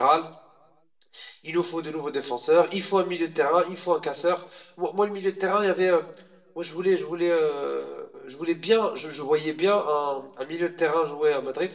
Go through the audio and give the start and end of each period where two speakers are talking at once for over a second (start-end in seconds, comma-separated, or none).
none